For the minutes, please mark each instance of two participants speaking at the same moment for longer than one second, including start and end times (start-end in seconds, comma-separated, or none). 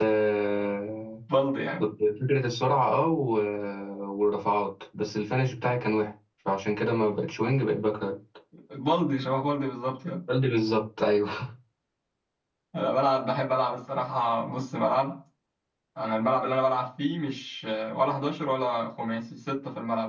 none